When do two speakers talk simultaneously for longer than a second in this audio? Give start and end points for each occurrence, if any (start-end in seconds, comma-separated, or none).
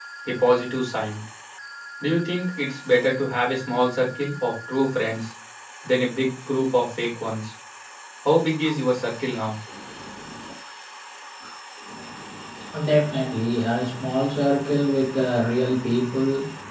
none